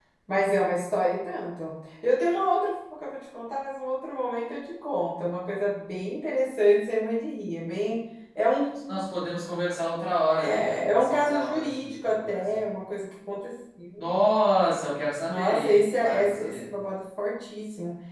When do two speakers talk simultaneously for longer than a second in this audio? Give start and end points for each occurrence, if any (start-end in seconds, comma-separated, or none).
10.4-12.4, 15.3-16.6